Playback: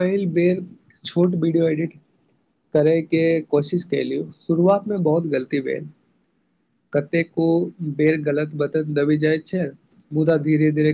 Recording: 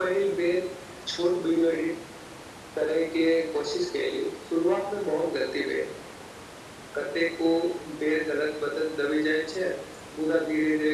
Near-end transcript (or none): none